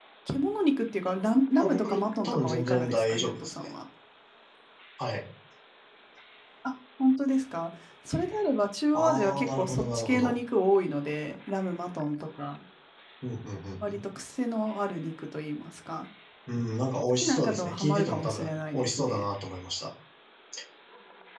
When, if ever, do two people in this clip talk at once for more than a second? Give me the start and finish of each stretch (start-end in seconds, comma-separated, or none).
1.6-3.7, 8.9-10.4, 17.2-19.2